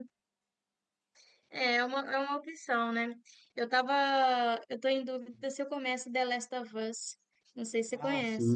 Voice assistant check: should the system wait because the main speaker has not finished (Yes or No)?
No